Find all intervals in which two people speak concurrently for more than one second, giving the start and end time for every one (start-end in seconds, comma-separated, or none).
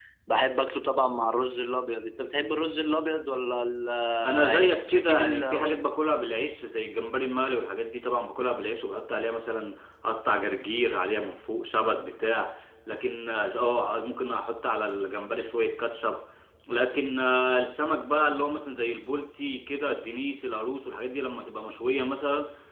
4.2-5.8